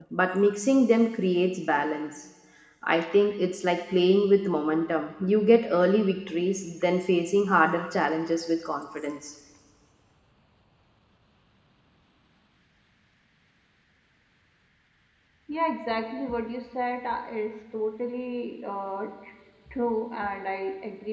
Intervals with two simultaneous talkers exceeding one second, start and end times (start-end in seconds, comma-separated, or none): none